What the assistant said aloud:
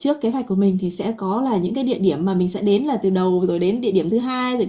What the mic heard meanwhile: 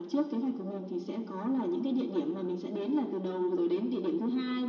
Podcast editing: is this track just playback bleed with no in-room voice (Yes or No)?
Yes